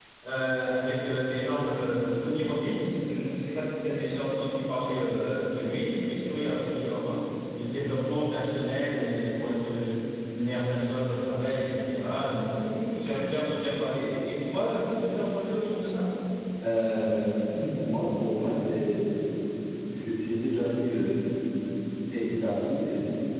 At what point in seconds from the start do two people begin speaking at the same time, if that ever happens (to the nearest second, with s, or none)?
none